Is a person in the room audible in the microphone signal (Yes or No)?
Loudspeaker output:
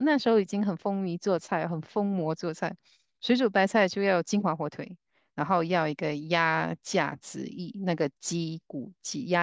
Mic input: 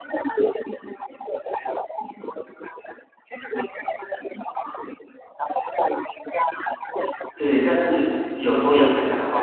Yes